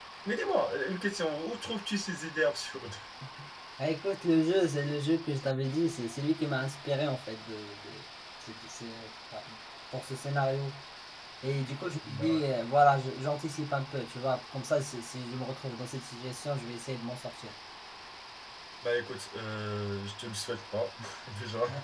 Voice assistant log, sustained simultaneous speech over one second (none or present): none